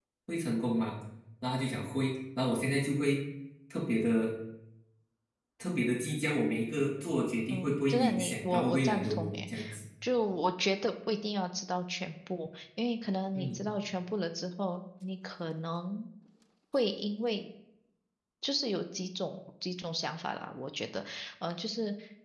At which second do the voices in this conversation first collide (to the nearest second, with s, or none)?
8 s